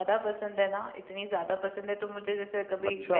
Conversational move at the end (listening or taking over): listening